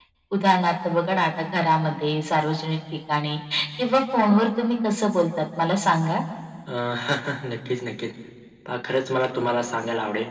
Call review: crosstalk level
none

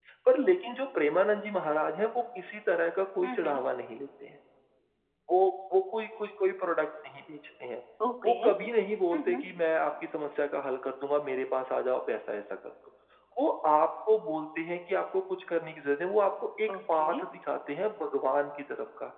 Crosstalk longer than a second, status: none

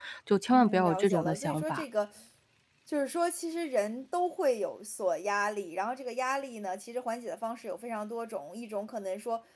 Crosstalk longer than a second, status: present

